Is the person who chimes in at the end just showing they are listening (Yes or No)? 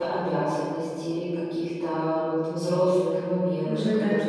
No